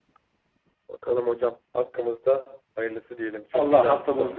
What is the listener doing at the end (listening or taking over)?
taking over